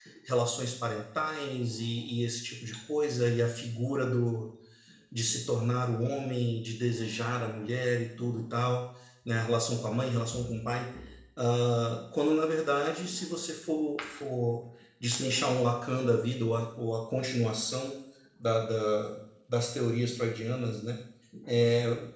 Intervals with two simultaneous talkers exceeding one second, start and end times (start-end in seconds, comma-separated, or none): none